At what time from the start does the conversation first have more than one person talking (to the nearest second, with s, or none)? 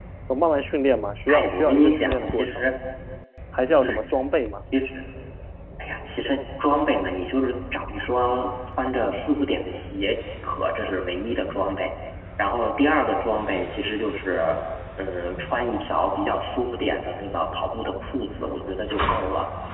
1 s